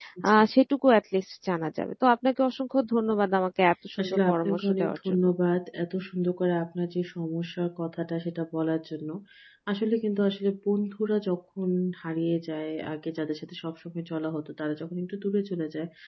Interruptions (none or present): present